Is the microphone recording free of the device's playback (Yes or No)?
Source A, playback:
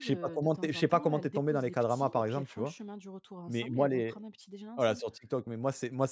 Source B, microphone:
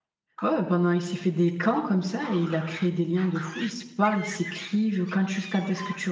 Yes